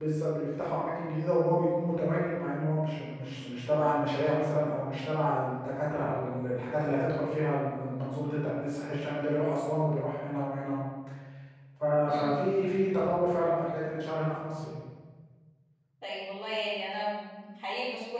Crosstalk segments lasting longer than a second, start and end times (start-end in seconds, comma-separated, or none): none